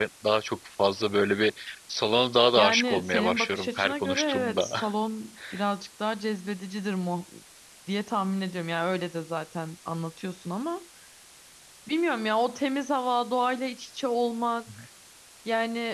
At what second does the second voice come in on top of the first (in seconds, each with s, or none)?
2.6 s